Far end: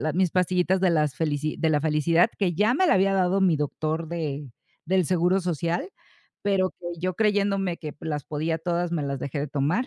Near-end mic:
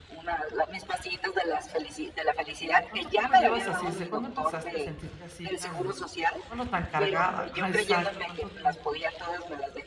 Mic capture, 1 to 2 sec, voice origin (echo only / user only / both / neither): echo only